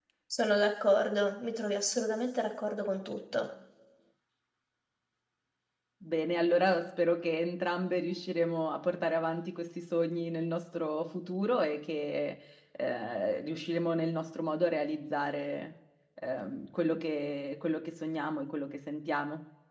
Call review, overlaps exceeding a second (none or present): none